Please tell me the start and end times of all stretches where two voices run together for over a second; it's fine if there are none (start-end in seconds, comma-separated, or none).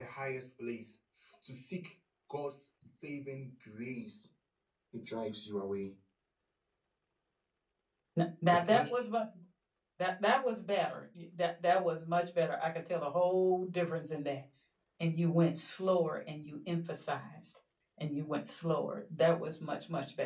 none